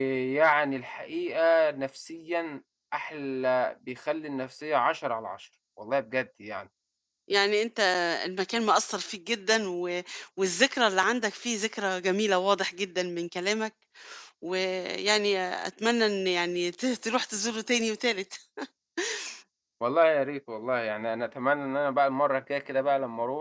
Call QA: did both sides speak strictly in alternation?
Yes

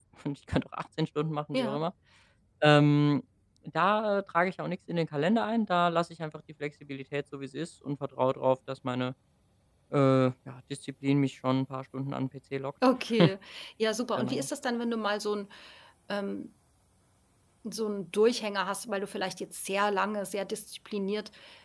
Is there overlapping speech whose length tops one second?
No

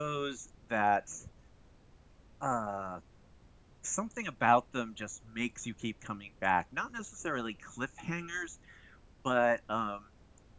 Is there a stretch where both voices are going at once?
No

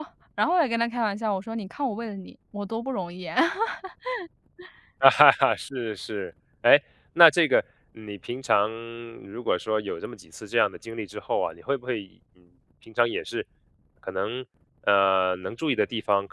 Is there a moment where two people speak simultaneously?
No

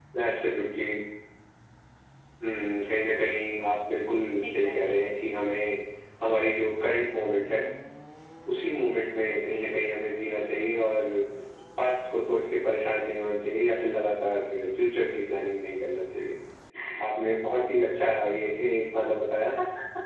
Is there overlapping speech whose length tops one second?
No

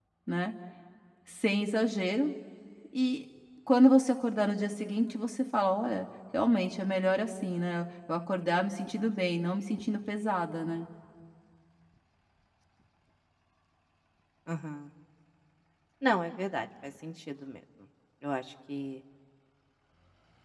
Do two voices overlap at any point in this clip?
No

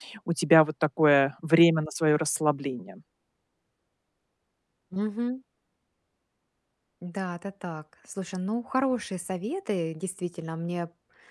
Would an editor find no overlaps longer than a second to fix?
Yes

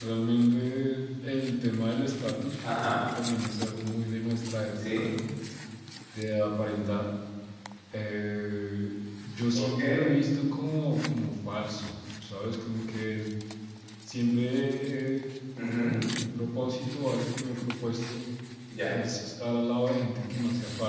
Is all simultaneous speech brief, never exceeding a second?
Yes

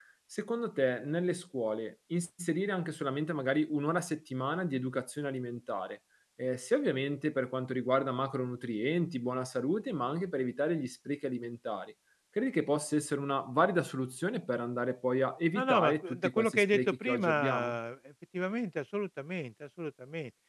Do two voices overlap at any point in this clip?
Yes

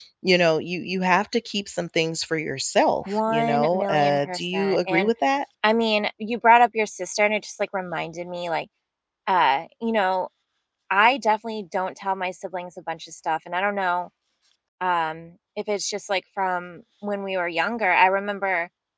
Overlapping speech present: Yes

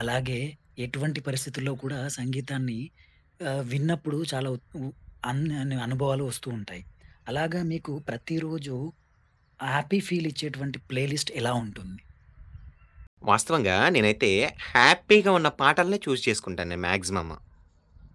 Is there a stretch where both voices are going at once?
No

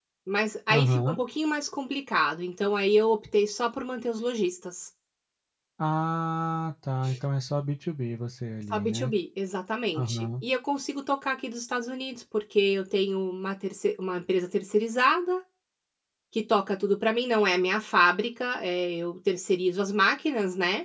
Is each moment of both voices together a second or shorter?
Yes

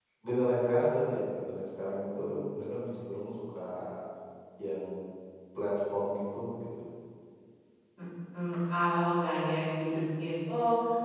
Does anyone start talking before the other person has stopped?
No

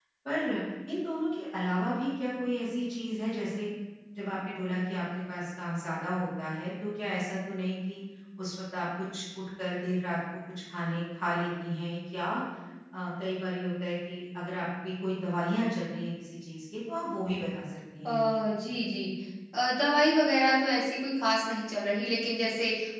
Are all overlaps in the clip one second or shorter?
Yes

